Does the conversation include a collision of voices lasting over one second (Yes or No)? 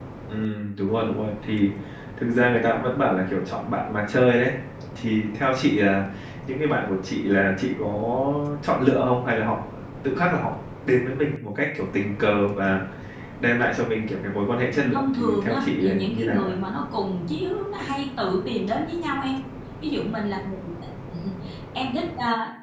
Yes